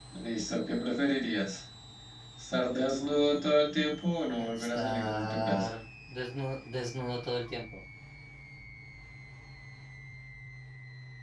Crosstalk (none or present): present